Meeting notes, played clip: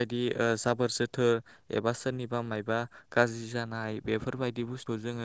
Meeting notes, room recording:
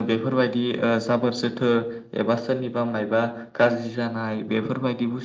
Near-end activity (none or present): none